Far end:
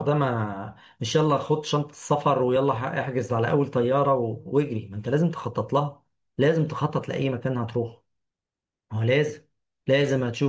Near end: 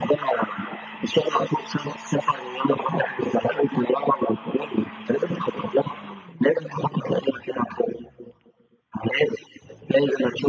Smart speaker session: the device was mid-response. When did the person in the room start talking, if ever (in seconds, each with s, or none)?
none